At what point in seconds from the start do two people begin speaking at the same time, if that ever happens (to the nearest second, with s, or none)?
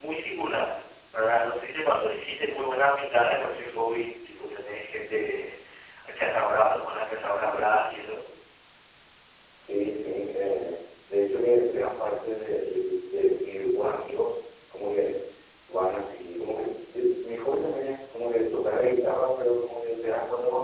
none